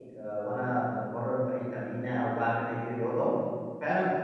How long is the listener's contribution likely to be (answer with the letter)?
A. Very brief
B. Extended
A